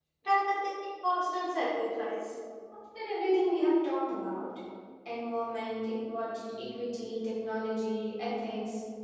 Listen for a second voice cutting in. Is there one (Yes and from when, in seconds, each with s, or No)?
No